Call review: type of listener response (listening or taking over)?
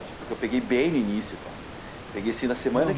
taking over